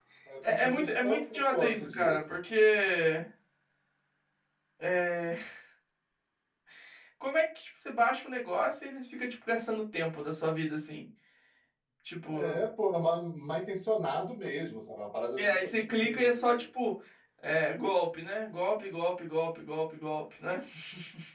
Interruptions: present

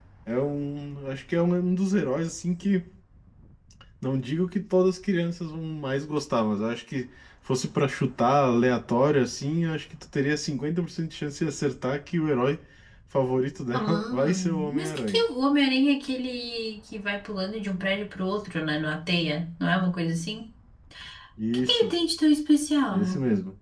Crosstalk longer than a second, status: present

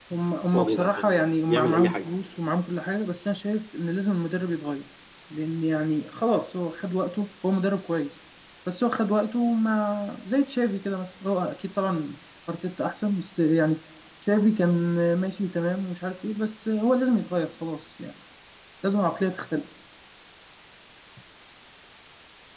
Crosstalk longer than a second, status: present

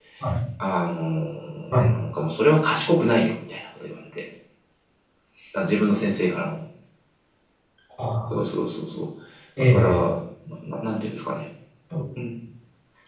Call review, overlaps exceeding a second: none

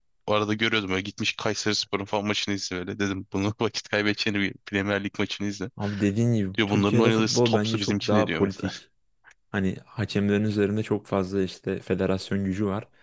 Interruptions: present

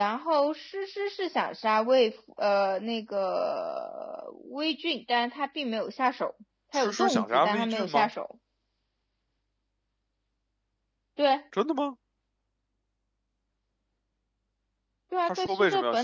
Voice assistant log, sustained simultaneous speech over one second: present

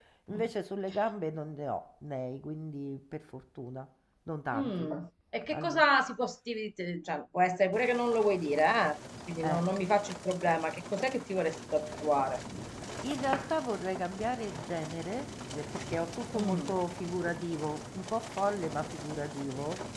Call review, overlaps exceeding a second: none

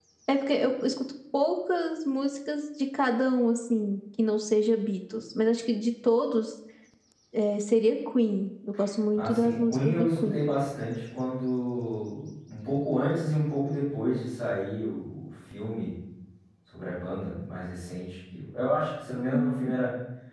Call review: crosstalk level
present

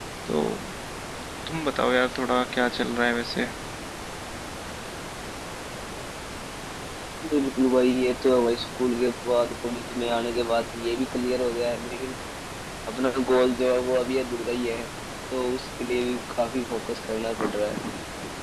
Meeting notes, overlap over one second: none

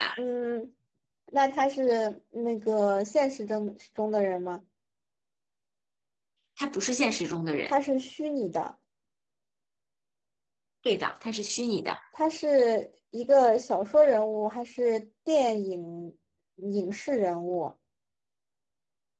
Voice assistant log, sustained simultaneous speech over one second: none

